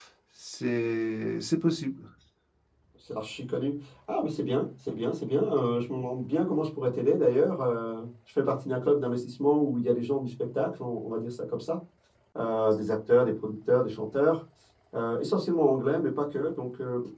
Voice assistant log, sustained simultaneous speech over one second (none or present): none